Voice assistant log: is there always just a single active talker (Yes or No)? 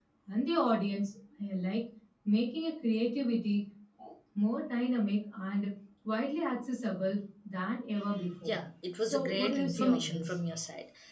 No